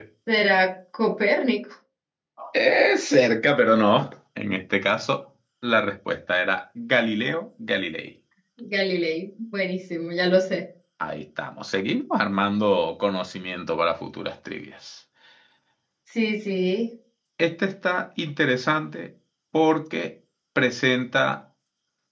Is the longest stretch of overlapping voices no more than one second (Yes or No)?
Yes